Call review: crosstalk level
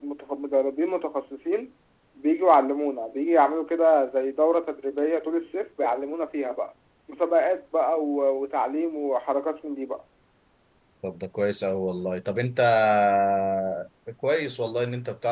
none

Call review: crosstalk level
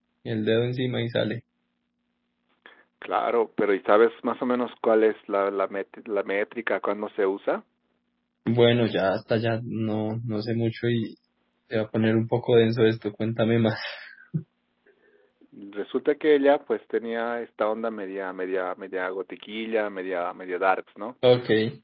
none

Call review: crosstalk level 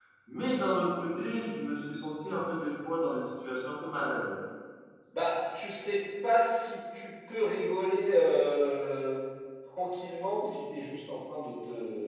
none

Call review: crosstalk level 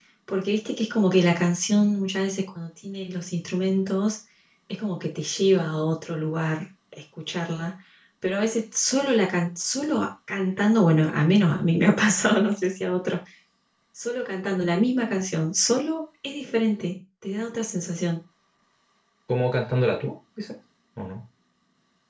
none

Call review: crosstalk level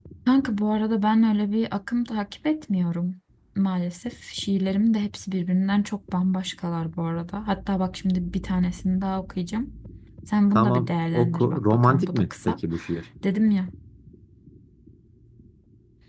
present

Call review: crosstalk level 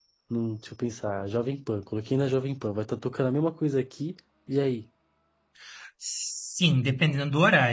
none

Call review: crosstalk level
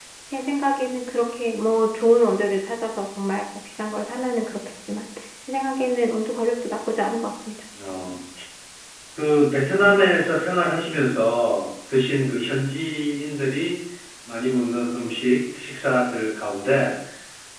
none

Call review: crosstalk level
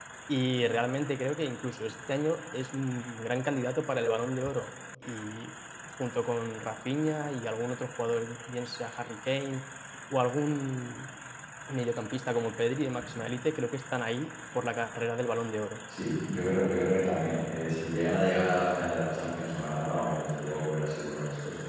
none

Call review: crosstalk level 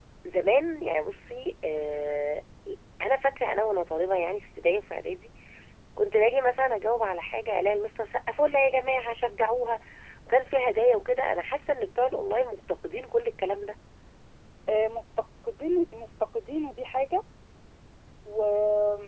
none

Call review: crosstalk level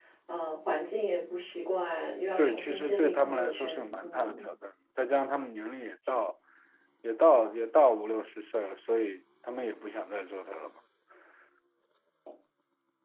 present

